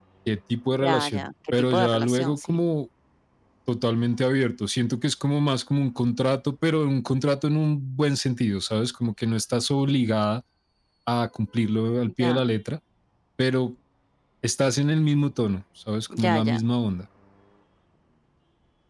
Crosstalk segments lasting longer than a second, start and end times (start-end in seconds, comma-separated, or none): 0.8-2.6